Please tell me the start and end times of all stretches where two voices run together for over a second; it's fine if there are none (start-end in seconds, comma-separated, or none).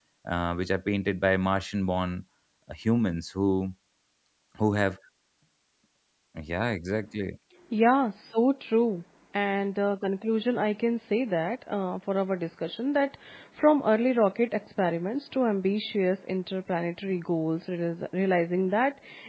none